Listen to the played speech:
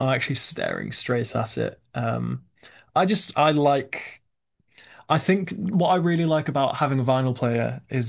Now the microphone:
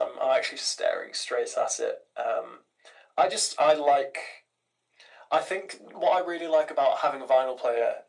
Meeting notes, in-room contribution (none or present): none